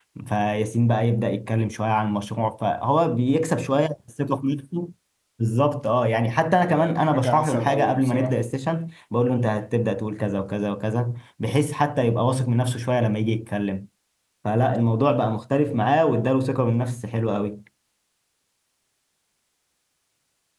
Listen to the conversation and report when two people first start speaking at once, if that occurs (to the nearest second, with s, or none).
7 s